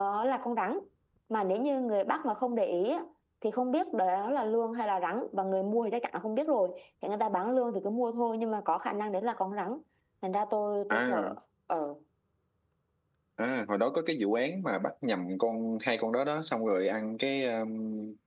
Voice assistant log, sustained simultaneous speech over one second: none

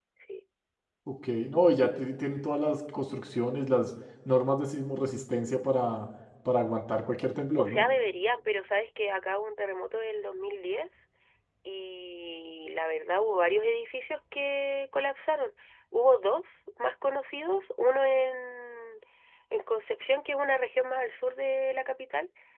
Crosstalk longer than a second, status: none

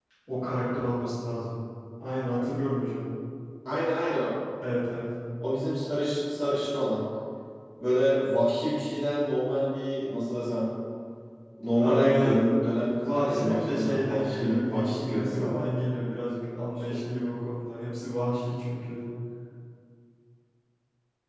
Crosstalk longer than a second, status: present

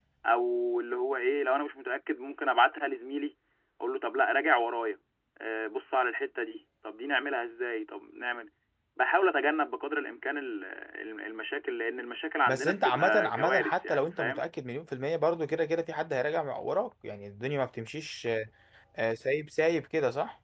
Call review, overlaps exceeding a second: present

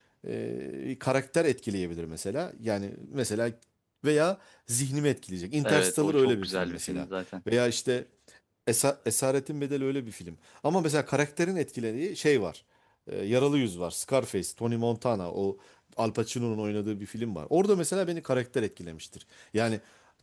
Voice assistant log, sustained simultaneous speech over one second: present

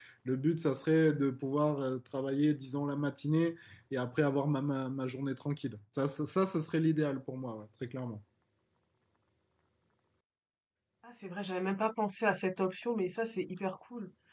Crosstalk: none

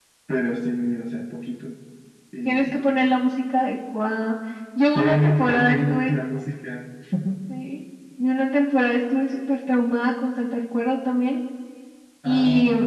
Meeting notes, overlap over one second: present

